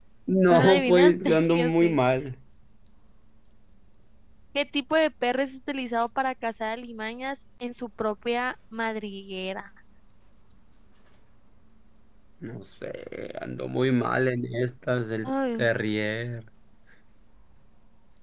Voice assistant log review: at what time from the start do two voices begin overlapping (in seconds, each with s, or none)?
0.5 s